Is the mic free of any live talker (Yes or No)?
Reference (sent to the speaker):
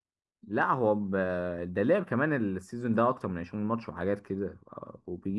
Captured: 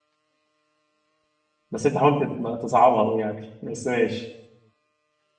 No